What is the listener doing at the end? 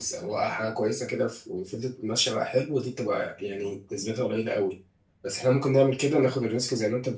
listening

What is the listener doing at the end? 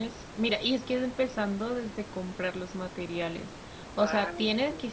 listening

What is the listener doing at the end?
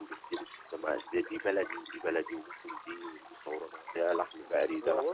taking over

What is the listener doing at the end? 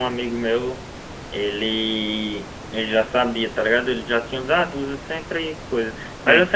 listening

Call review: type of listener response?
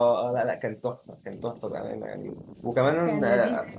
listening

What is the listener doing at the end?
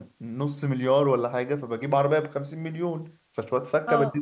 taking over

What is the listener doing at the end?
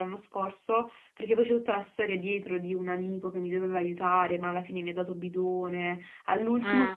listening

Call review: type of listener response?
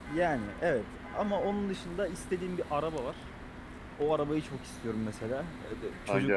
listening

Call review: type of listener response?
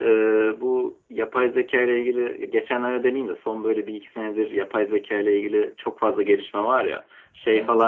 listening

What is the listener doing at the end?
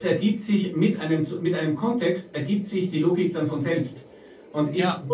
listening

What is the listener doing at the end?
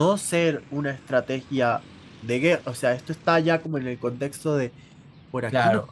taking over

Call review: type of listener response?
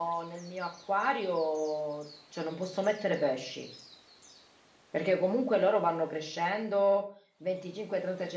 listening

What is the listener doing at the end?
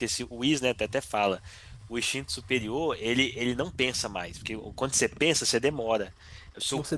listening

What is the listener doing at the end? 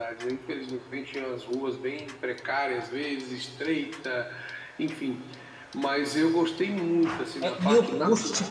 taking over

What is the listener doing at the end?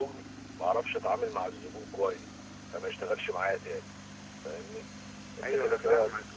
taking over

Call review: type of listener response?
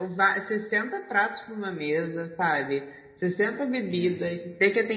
listening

